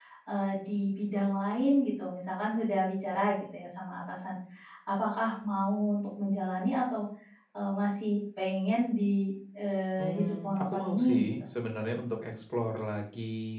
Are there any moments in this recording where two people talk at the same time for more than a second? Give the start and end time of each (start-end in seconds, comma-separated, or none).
10.0-11.3